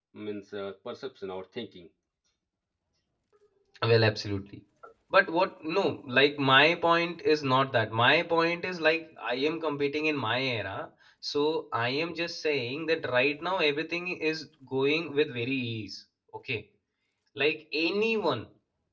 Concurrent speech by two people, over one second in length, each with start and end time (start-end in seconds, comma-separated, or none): none